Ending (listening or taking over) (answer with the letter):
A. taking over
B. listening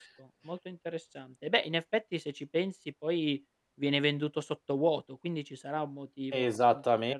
A